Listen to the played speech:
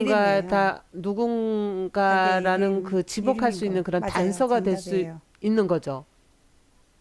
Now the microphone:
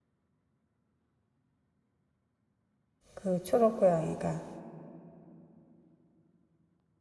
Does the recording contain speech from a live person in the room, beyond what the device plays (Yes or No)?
Yes